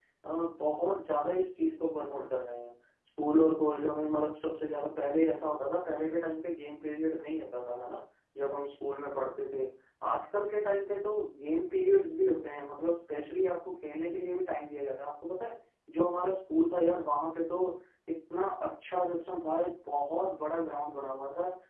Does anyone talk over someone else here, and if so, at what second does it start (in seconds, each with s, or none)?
none